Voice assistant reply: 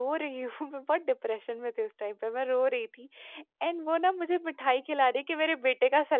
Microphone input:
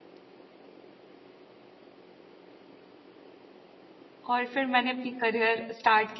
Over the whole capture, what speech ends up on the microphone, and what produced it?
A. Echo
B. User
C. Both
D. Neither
B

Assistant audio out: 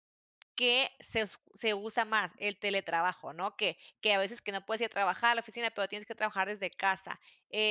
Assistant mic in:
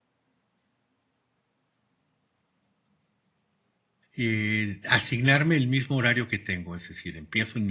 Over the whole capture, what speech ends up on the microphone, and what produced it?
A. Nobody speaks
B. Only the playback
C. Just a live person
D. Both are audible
C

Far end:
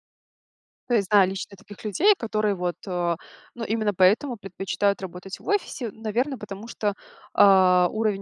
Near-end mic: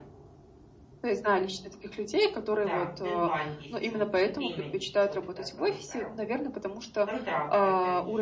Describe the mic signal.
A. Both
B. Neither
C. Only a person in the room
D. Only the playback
A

